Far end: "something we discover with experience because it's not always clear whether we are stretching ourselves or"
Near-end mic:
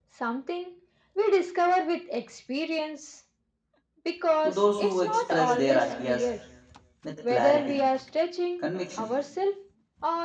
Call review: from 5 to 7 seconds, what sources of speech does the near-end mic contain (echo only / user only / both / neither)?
both